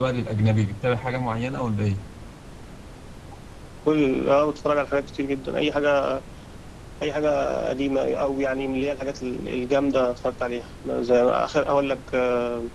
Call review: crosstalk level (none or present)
none